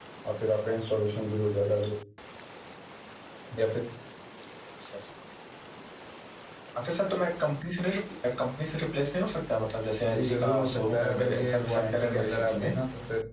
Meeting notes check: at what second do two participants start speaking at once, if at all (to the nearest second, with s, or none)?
10 s